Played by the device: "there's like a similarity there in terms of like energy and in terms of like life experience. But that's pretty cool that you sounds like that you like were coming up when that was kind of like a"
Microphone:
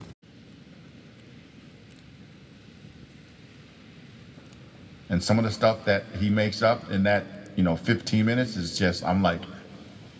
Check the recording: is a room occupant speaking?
Yes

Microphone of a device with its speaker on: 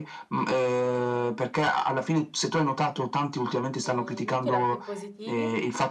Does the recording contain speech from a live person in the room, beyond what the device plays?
Yes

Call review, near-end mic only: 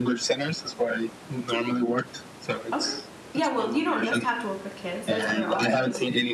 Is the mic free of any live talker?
No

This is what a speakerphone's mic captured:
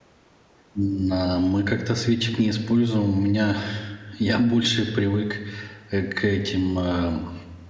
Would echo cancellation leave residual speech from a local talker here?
Yes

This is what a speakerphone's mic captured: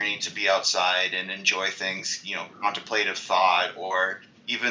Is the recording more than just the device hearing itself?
Yes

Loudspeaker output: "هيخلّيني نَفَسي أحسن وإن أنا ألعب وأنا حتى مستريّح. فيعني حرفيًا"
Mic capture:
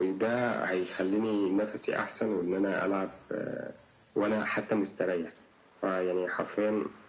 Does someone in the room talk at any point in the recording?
No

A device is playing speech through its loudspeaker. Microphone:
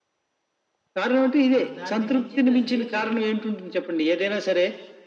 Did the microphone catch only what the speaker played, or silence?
No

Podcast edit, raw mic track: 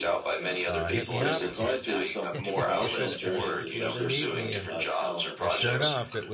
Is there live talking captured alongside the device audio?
Yes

